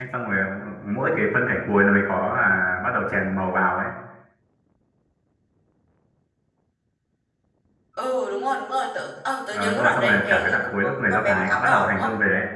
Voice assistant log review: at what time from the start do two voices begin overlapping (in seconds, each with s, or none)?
9.5 s